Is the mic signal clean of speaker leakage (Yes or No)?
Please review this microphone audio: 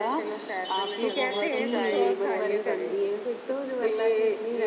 No